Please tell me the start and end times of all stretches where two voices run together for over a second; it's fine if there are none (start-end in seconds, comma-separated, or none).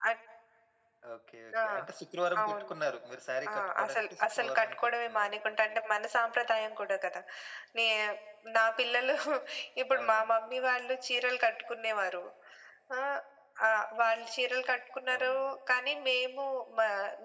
3.5-5.8